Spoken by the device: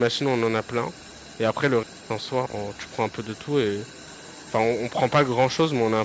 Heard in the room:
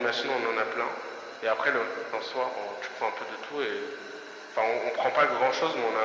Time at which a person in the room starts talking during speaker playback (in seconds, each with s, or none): none